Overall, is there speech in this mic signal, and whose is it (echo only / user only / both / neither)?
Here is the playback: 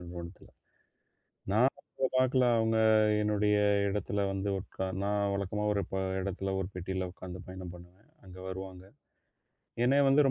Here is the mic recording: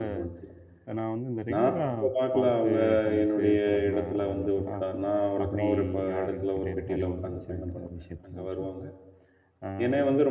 both